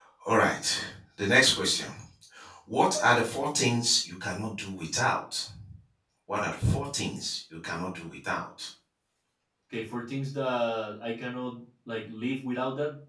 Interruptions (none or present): none